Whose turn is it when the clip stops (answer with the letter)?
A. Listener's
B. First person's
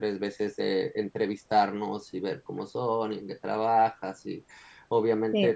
B